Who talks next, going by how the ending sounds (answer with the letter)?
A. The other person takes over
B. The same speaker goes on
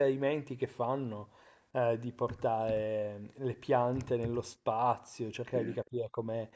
B